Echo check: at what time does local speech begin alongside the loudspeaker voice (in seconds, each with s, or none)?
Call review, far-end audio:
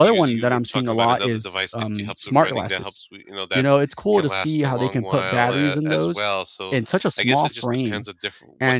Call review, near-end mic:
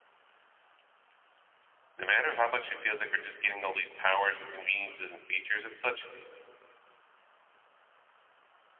2.0 s